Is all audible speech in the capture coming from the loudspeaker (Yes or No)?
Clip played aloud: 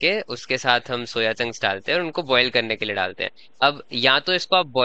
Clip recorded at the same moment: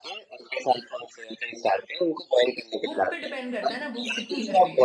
No